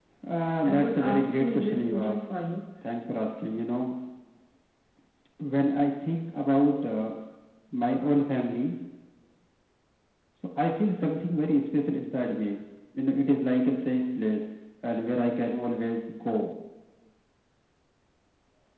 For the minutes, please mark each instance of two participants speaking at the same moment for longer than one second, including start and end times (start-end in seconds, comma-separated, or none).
0.7-2.2